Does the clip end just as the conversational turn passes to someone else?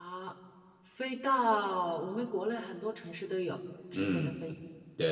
Yes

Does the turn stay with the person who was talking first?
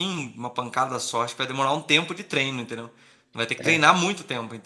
Yes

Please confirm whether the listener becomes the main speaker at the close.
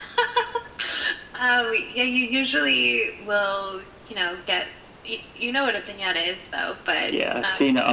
Yes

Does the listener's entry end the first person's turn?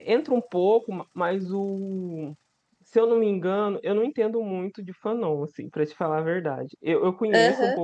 No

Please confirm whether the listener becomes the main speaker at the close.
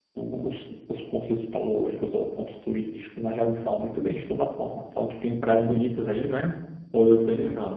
Yes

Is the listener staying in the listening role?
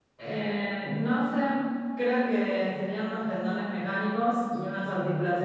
Yes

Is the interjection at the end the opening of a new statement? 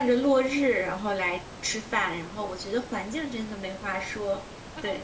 Yes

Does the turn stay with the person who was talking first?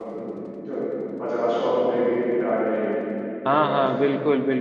No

